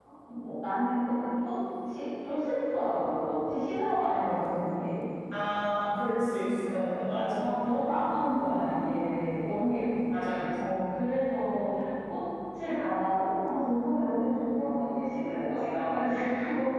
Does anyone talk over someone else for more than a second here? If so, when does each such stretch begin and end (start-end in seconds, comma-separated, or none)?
none